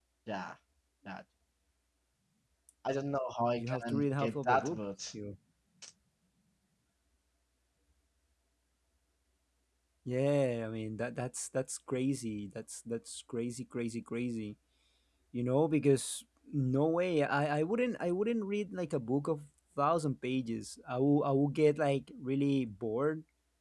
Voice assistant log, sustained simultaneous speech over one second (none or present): present